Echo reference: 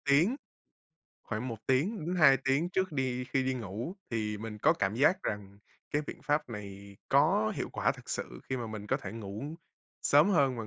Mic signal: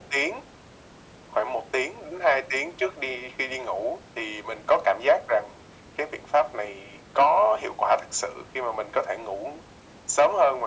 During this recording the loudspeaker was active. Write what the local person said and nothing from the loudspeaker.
none

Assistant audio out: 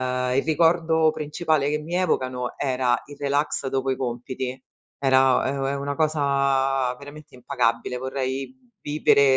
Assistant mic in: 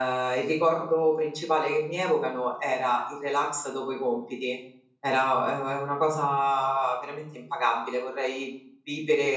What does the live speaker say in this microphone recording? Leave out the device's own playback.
none

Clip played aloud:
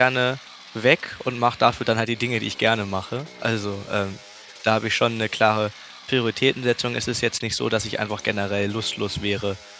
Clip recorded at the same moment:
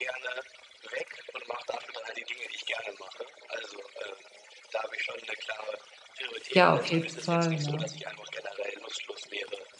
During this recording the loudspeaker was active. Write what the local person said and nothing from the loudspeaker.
Ja, auf jeden Fall, ne?

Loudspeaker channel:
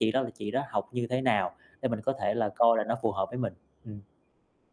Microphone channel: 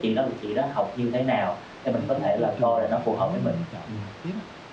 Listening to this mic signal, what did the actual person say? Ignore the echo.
cái cái cái trường mà bạn muốn muốn chọn học tiếp á,

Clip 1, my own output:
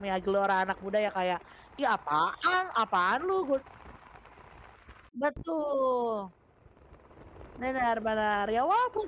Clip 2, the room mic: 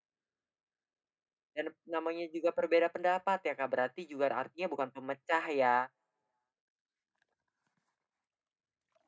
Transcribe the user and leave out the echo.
dan namanya juga berbeda pendapat ya, Kak, berarti juga artinya bukan pemecah ya,

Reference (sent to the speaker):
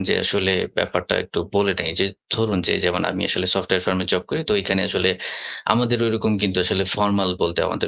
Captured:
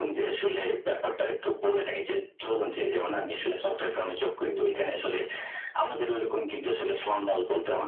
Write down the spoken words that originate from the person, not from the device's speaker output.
হুম।

